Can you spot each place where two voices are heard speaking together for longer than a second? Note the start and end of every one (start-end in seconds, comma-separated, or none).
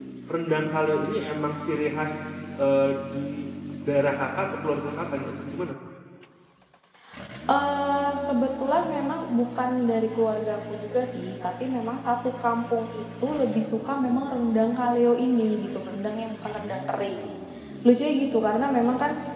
none